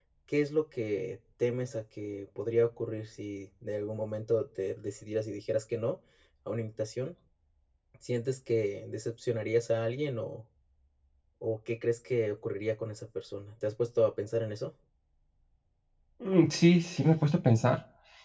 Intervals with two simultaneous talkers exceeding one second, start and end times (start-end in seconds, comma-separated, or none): none